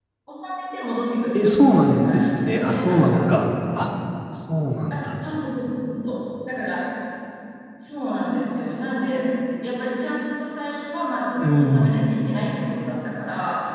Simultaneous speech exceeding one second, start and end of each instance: 1.5-3.2

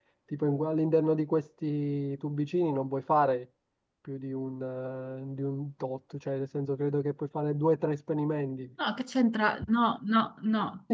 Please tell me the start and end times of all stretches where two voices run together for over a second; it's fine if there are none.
none

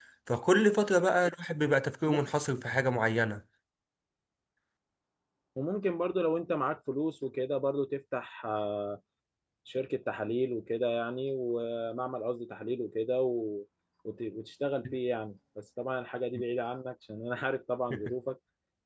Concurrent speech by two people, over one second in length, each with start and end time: none

